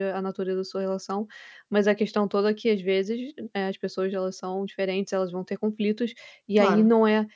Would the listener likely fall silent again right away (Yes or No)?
Yes